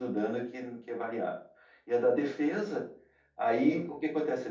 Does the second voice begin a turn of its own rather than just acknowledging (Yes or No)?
No